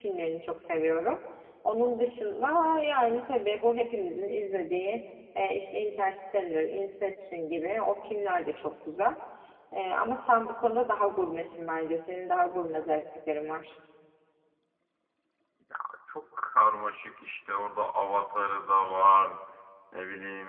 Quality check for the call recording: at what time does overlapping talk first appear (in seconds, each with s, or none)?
none